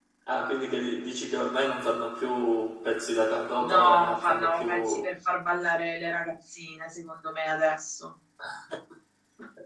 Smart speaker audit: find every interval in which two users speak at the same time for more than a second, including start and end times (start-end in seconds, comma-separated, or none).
3.6-5.0